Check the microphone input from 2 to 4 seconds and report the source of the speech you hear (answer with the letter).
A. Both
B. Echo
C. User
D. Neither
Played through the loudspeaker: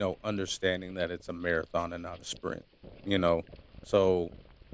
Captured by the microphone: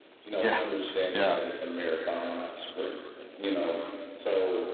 B